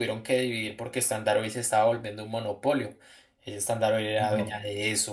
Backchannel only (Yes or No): Yes